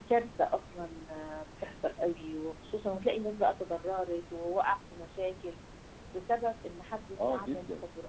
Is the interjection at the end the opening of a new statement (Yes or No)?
No